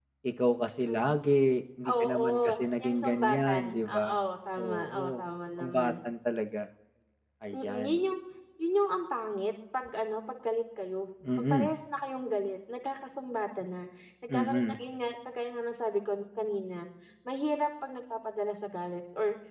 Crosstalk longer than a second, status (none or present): present